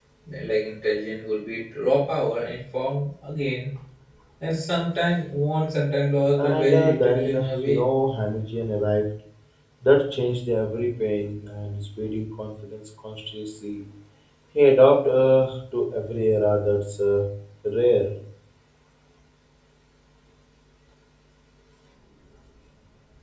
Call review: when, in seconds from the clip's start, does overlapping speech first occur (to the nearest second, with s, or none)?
6 s